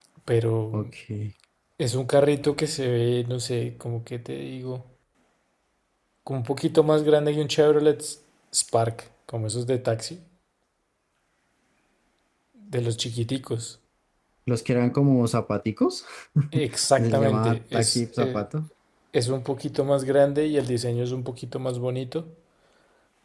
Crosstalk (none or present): present